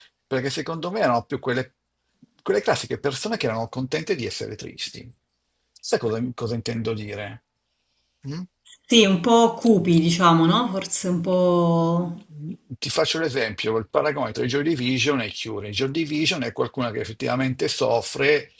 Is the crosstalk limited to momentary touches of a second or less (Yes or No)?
Yes